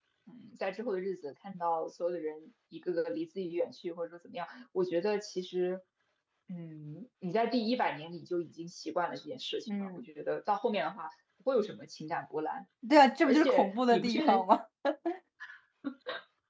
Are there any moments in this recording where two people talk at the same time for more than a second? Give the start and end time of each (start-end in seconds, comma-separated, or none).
13.2-14.4